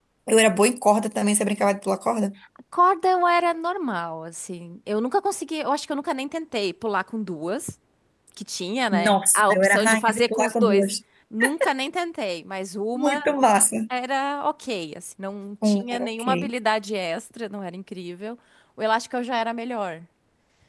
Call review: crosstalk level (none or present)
present